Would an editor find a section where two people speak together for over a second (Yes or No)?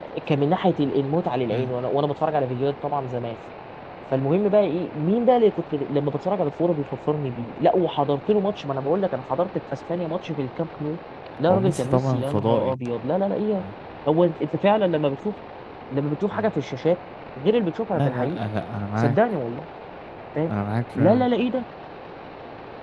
Yes